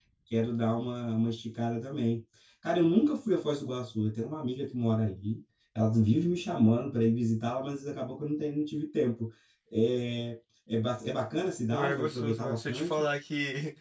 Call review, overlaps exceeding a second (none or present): present